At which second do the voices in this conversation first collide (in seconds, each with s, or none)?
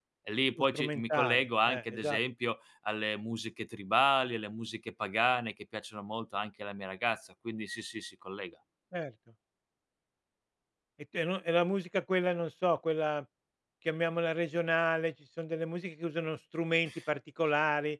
0.6 s